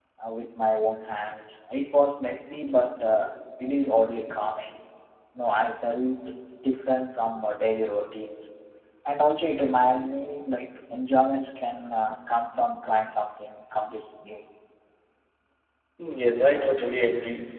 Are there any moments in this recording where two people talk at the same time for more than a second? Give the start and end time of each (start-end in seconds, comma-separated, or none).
none